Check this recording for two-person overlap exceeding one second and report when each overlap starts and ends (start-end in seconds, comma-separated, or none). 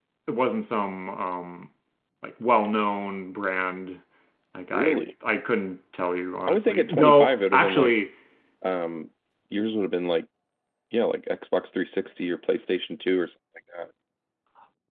6.5-7.9